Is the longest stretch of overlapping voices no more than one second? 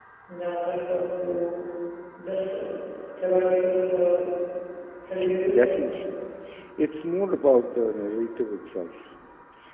Yes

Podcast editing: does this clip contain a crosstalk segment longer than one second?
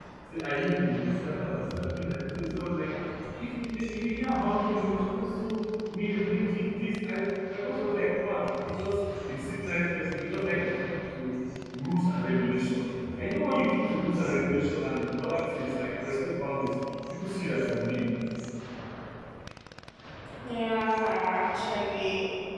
No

